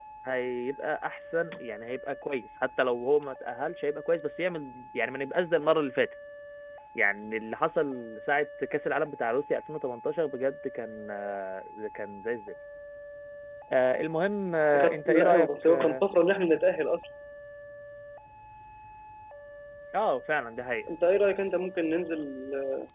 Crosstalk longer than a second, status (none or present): present